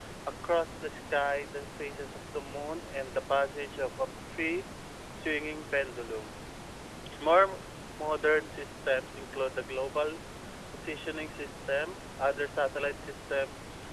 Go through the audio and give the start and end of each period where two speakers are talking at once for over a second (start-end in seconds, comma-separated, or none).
none